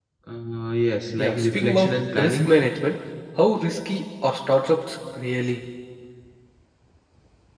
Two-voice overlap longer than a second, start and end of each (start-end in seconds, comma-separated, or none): 1.2-2.5